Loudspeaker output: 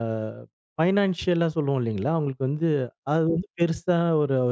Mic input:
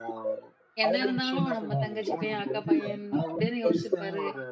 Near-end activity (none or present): present